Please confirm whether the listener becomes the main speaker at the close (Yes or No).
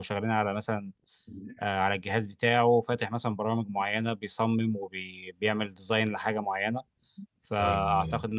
No